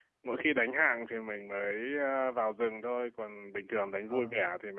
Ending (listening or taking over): listening